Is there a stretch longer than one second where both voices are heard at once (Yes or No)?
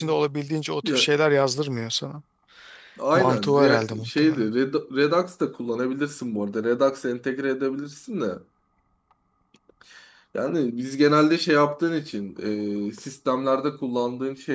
Yes